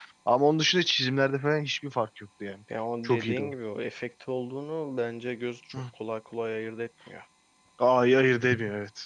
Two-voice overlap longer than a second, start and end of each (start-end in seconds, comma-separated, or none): none